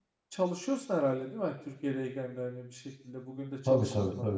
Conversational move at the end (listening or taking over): taking over